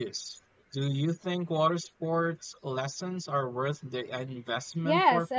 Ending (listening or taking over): taking over